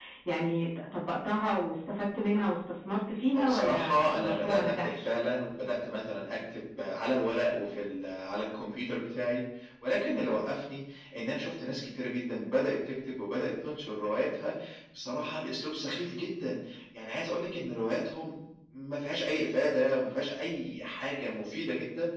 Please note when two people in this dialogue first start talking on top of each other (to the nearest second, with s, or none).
3 s